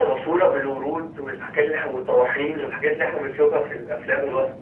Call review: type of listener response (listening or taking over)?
taking over